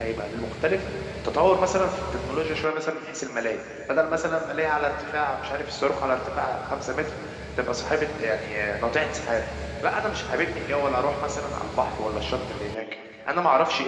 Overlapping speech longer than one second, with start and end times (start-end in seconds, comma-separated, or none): none